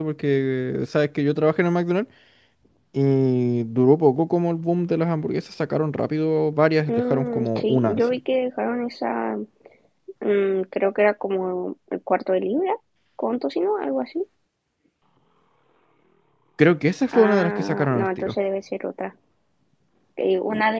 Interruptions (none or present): present